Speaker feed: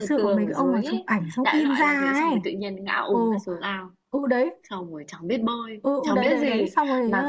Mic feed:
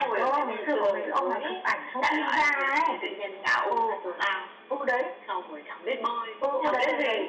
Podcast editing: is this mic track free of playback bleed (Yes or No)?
No